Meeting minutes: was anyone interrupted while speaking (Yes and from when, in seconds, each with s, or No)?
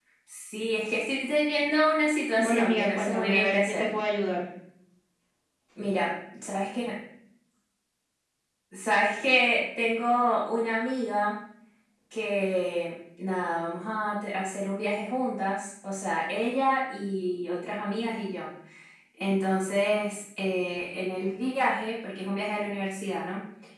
Yes, from 2.4 s